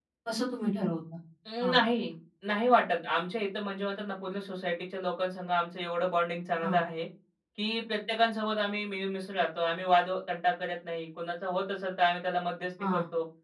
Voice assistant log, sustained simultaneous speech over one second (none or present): none